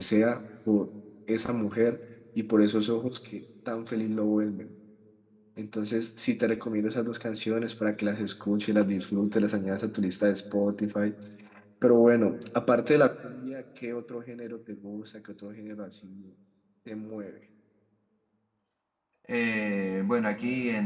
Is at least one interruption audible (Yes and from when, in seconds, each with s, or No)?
No